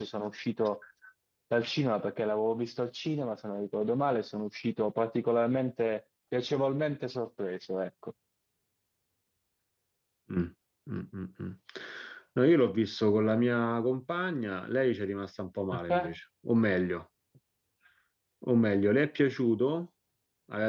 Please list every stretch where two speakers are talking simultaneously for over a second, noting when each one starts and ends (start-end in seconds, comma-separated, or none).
none